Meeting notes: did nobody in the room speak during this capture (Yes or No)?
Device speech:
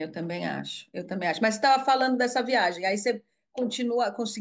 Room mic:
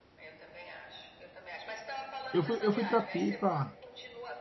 No